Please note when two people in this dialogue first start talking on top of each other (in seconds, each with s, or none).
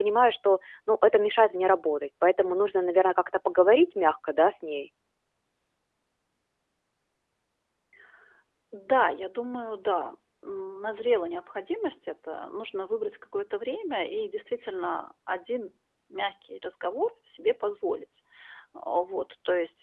none